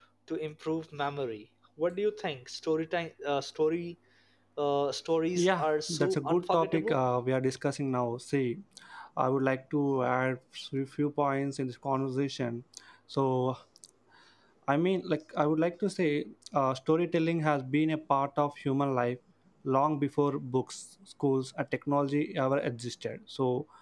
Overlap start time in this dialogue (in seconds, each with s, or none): 5.3 s